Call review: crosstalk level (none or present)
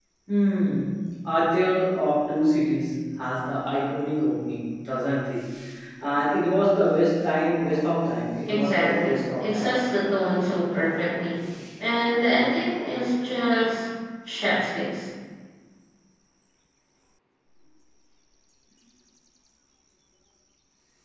present